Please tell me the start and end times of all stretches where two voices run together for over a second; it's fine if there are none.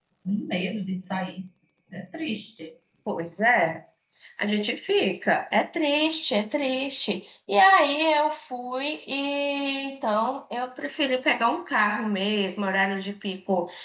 none

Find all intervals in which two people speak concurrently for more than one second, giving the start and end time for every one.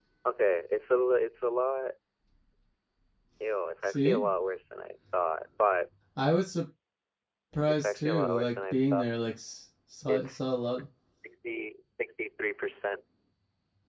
7.7-9.1

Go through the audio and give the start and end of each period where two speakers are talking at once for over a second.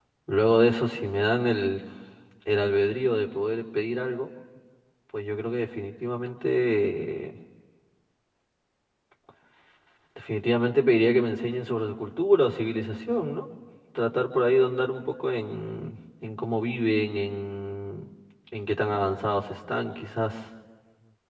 none

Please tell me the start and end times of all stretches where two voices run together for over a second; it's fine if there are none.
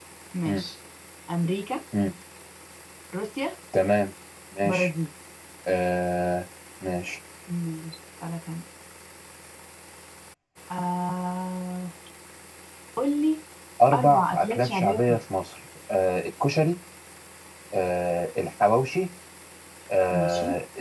13.9-15.2

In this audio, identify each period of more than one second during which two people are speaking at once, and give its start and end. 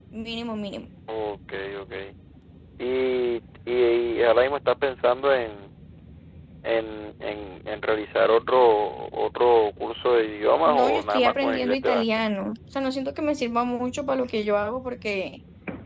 10.7-12.1

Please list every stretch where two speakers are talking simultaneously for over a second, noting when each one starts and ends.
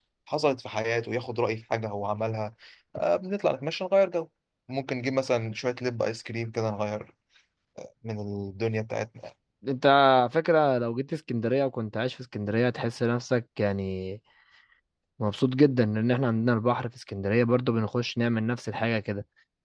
none

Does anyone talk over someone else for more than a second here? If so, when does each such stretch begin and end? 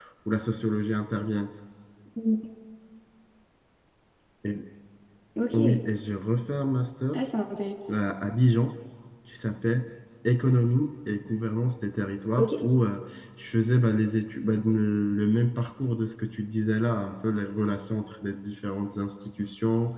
none

